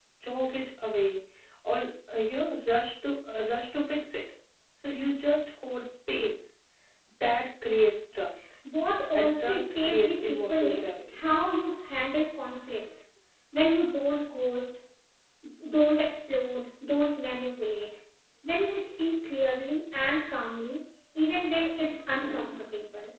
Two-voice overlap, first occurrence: 9.2 s

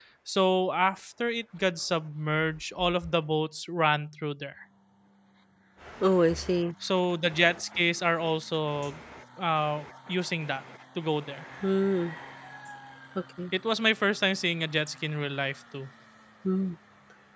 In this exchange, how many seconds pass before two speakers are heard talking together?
none

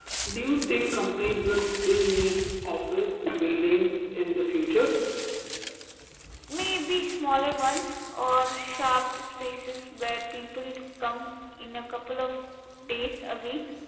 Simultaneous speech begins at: none

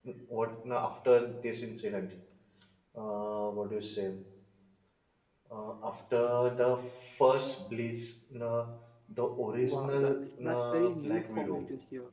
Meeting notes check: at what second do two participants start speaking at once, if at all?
9.6 s

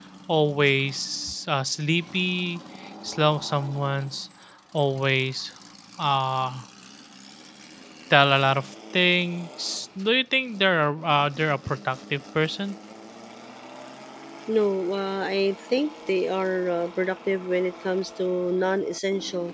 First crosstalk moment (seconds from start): none

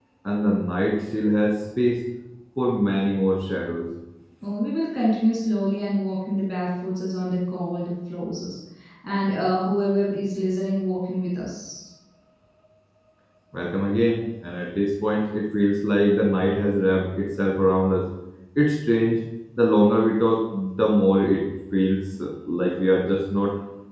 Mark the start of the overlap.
none

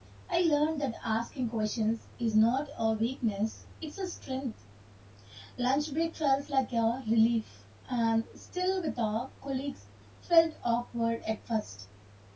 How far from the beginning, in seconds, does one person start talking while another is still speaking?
none

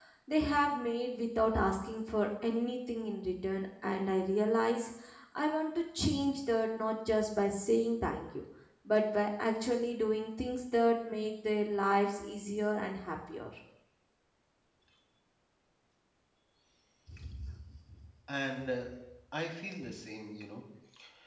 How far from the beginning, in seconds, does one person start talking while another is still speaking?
none

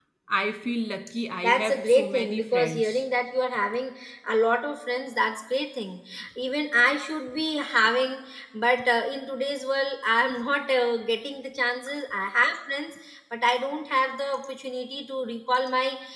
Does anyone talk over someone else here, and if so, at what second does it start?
1.4 s

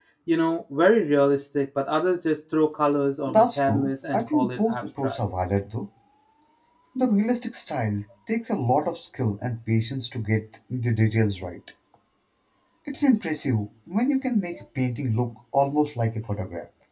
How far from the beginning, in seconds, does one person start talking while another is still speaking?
3.3 s

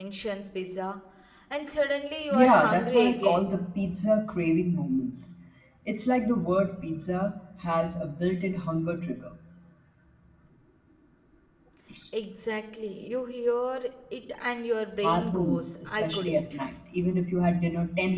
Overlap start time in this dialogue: 2.3 s

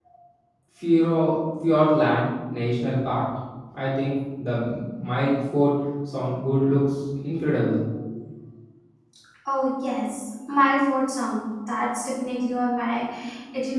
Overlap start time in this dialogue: none

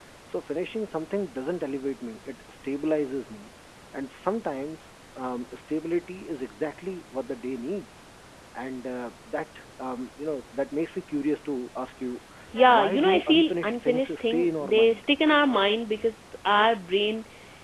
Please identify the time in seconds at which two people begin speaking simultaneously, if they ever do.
12.7 s

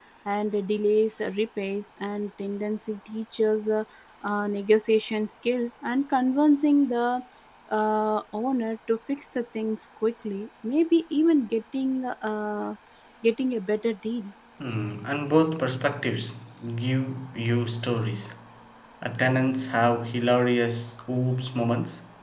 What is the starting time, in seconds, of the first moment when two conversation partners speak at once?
none

